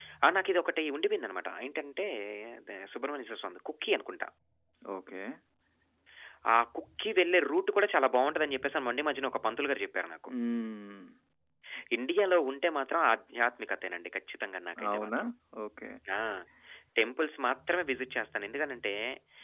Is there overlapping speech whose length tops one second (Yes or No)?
No